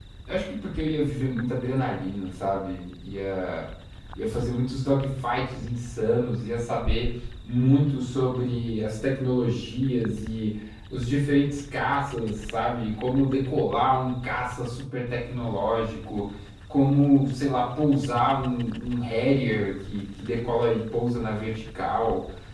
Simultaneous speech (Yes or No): No